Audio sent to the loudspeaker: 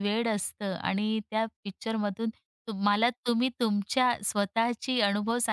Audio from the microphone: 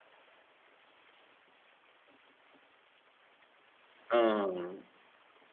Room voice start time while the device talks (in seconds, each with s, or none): 4.1 s